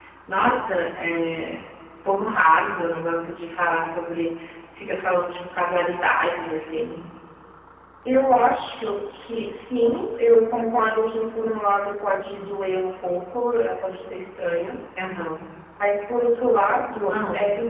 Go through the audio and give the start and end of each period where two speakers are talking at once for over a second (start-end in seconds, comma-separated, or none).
none